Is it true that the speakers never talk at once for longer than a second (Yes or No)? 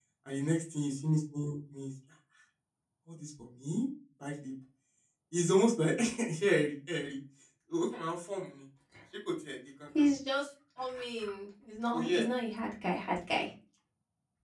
Yes